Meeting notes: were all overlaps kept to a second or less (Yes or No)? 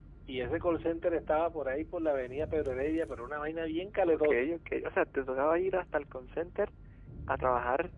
Yes